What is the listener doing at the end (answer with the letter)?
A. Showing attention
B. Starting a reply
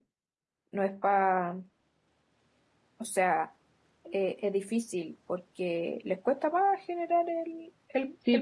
B